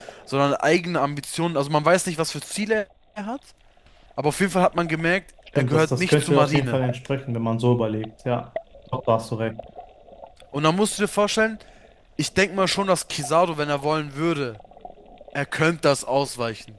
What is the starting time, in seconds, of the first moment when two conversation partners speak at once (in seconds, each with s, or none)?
5.6 s